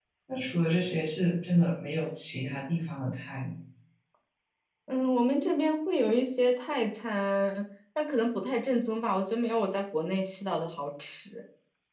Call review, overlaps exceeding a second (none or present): none